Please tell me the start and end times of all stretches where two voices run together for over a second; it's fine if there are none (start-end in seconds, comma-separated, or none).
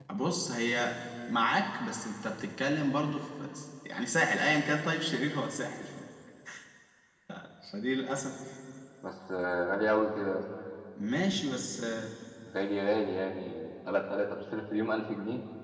none